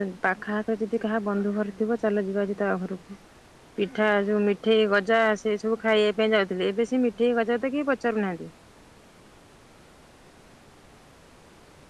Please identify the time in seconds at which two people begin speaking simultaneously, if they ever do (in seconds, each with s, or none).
none